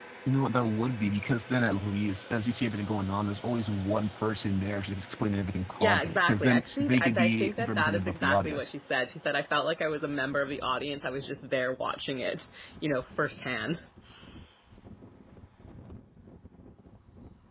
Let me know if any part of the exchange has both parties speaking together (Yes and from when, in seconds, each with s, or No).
Yes, from 5.8 s